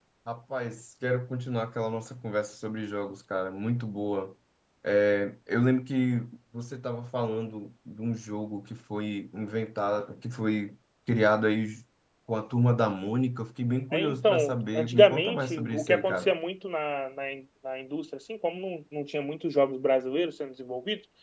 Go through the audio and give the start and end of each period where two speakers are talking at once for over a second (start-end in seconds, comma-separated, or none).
13.9-16.3